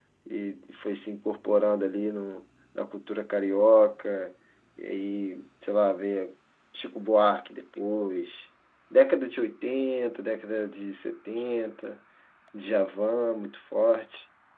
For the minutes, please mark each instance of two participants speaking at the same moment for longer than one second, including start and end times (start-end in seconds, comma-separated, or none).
none